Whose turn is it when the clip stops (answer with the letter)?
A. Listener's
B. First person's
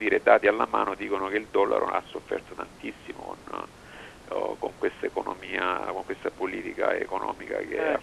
B